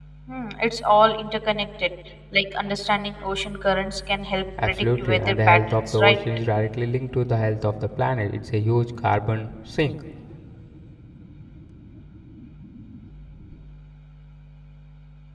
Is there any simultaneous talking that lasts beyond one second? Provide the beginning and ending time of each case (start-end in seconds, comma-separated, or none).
4.7-6.2